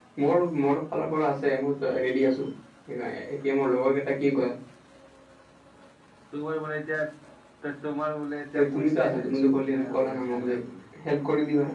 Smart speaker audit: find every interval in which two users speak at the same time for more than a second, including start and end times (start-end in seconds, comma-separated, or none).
8.7-10.6